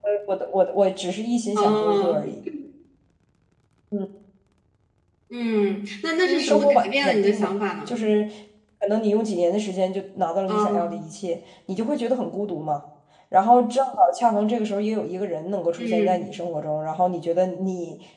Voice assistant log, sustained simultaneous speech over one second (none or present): present